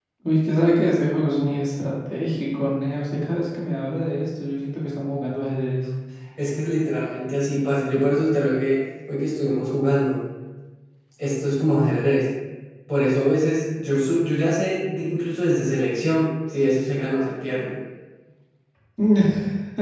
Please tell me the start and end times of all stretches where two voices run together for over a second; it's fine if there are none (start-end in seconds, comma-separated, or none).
none